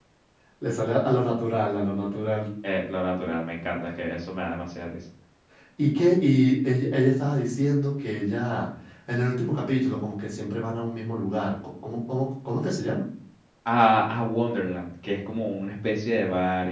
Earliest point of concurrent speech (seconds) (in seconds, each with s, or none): none